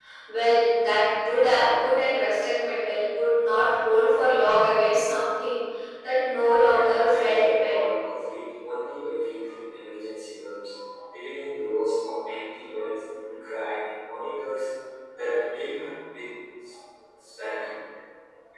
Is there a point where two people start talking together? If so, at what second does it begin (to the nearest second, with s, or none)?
7 s